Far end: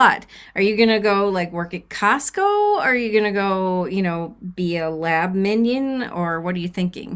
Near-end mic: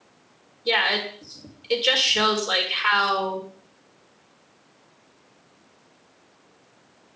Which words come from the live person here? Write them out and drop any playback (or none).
yeah, it, it just shows like how